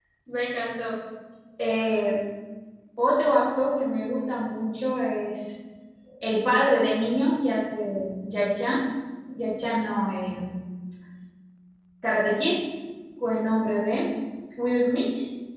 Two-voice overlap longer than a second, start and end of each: none

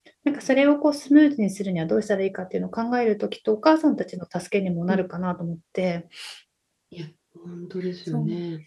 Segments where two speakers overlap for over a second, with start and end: none

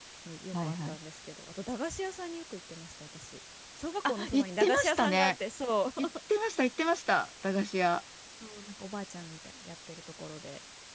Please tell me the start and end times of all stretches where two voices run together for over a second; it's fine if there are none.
4.0-5.3

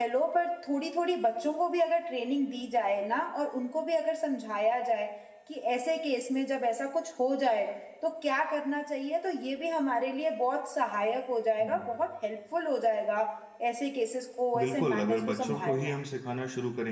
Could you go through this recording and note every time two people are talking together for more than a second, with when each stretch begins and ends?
14.6-16.0

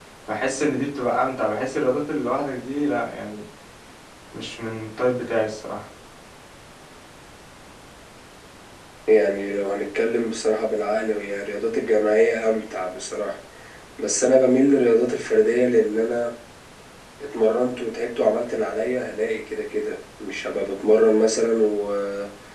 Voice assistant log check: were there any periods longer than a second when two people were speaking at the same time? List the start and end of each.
none

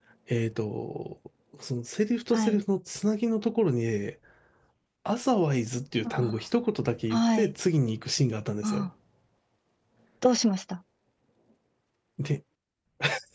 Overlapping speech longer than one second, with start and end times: none

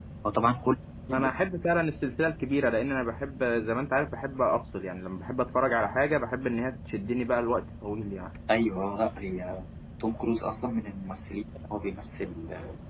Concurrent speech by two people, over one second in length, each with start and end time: none

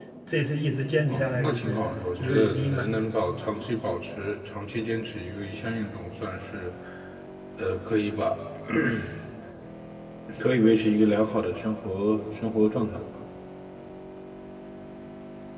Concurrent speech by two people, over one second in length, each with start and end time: 1.1-2.9

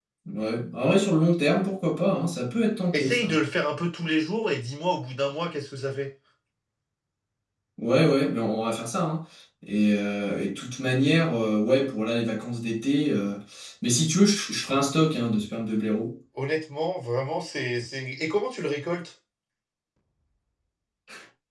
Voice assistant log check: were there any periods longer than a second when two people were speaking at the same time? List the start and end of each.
none

